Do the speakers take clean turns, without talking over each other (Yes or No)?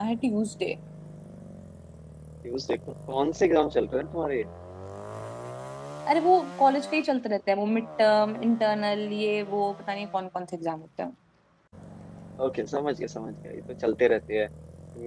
Yes